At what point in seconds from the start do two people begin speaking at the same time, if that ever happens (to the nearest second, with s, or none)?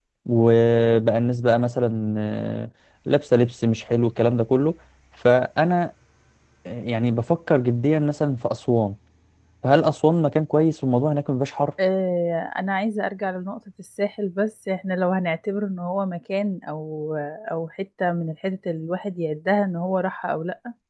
none